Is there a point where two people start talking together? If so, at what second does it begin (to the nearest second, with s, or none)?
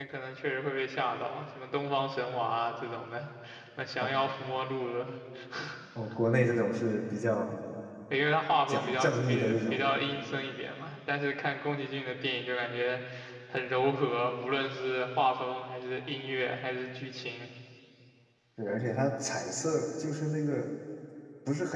9 s